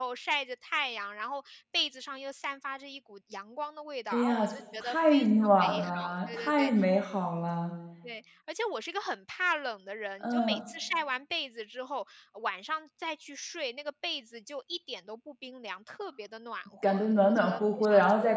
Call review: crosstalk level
present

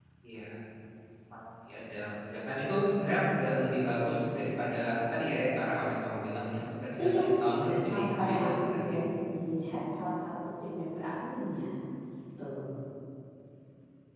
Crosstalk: present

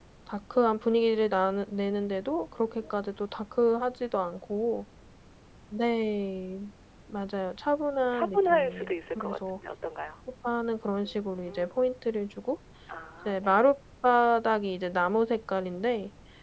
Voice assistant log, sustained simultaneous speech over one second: present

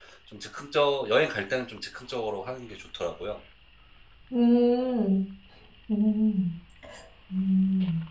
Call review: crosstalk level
none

